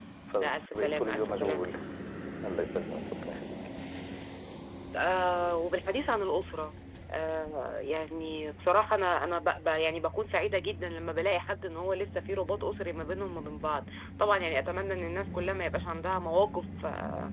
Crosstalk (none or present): present